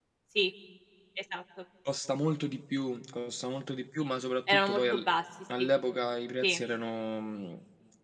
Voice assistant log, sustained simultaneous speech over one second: none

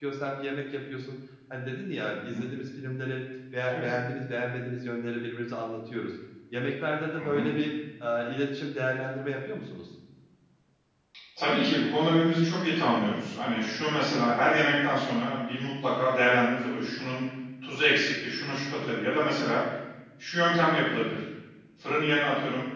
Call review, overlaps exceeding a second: none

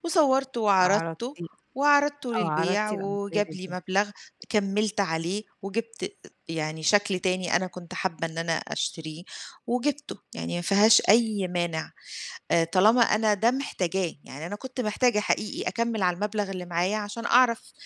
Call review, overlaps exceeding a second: present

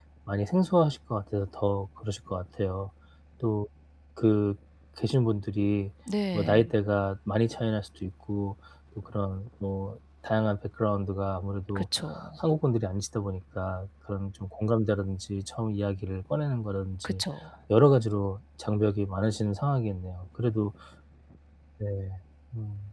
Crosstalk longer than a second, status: none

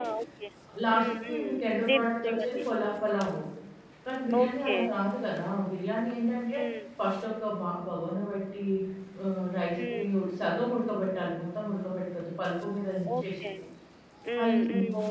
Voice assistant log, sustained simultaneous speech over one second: present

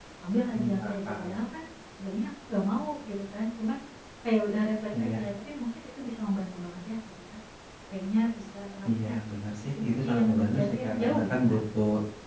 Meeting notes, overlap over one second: present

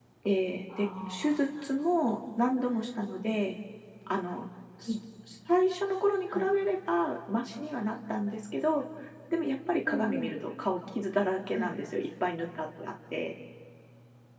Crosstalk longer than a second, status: present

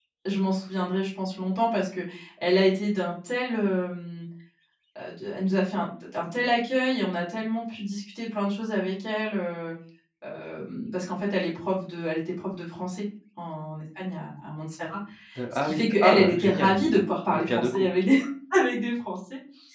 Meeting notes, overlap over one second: present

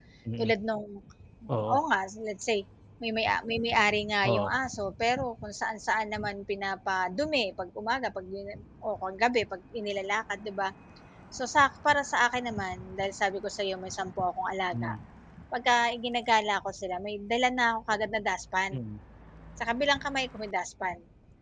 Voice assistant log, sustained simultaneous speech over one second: none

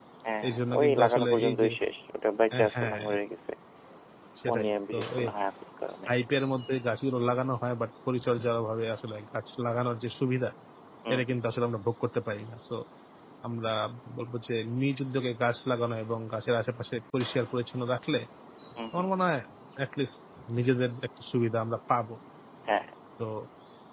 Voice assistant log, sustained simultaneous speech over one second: present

